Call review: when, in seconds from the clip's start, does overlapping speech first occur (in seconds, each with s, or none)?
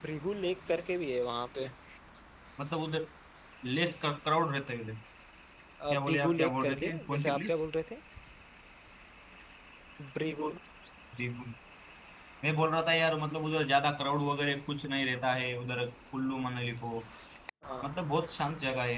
5.9 s